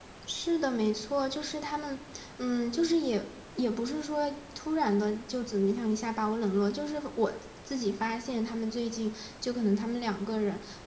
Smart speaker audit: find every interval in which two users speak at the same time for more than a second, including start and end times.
none

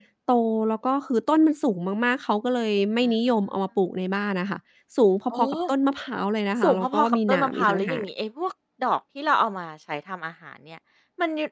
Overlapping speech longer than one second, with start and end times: 6.6-8.1

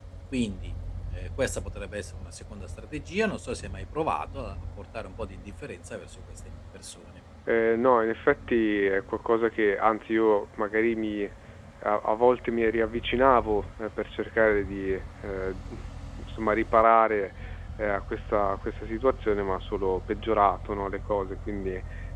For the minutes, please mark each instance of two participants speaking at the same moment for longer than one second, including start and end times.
none

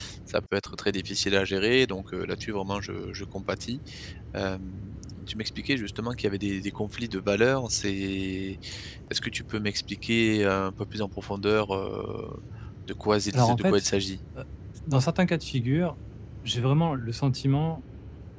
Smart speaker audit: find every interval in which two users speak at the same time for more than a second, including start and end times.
none

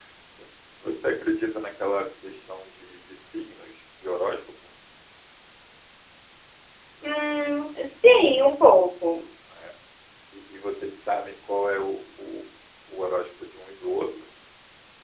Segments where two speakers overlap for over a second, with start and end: none

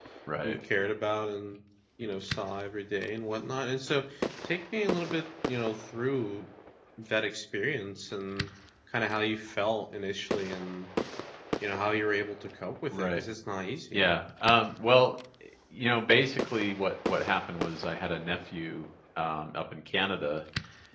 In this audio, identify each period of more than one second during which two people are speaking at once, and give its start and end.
none

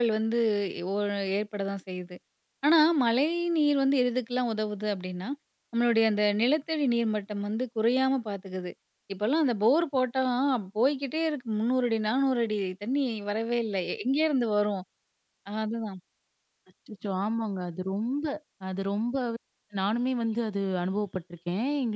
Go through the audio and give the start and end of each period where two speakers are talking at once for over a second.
none

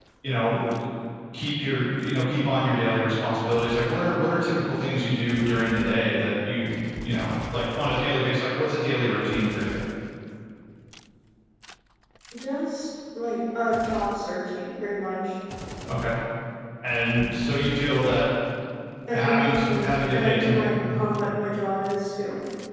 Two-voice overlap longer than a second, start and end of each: 19.1-21.1

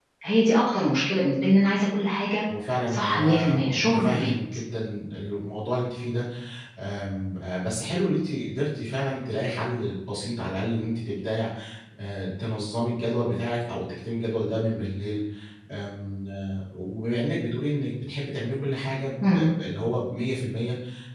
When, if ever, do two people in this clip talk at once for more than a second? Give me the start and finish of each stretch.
2.9-4.3

